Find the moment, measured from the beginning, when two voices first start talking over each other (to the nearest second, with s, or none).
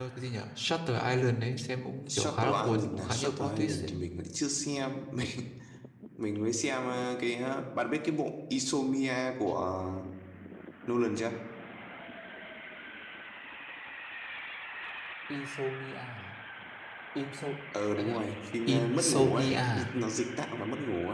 2 s